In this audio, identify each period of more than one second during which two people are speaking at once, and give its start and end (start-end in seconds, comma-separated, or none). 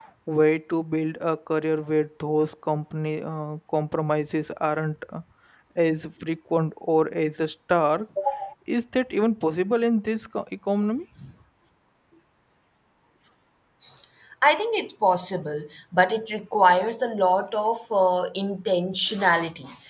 none